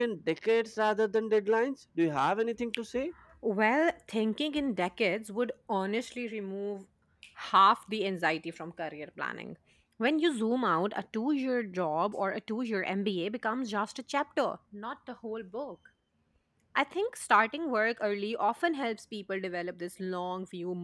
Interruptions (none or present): none